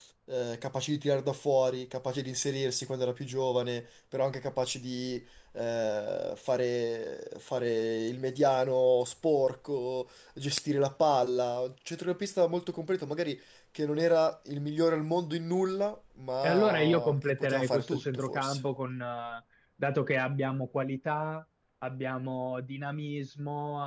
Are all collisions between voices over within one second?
No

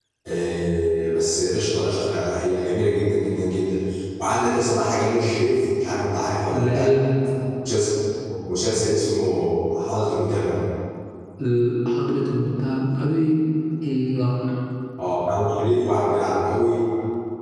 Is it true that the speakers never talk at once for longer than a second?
Yes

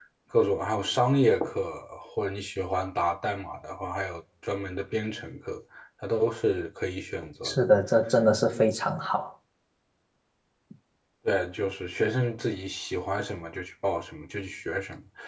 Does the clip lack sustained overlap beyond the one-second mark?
Yes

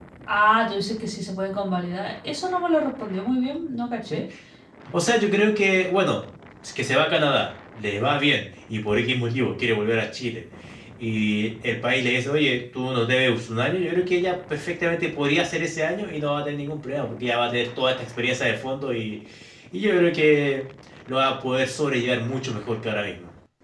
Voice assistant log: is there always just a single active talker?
Yes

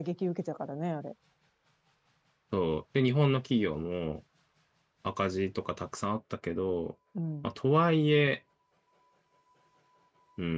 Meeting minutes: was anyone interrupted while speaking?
No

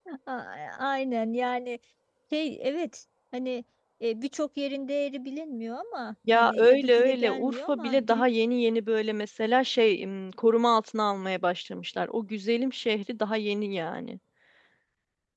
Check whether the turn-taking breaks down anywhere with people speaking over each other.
Yes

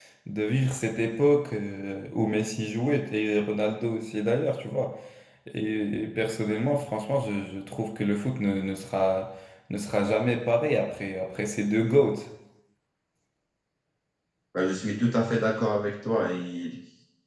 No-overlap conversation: Yes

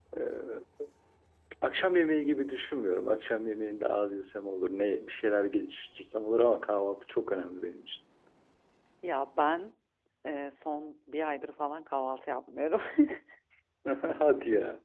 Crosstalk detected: No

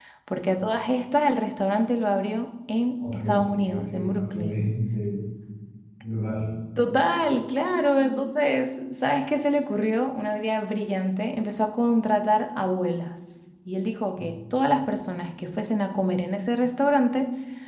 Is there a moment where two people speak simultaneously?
Yes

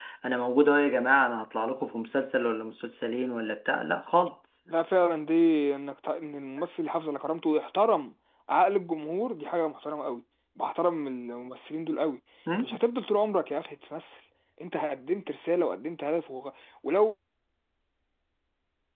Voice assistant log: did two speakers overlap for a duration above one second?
No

